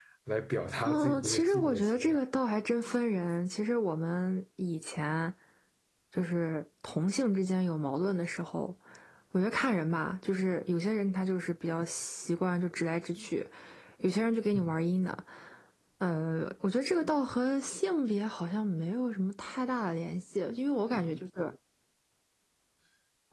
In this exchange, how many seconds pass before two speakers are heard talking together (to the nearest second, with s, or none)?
1 s